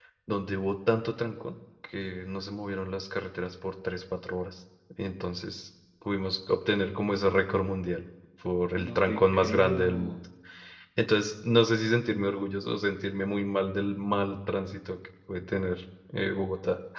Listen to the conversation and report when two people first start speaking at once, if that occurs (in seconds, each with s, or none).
8.8 s